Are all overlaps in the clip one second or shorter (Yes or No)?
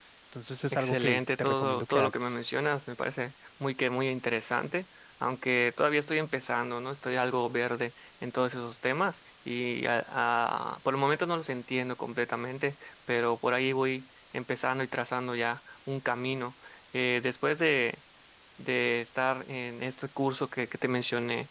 No